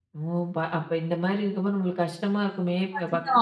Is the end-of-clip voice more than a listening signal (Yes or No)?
Yes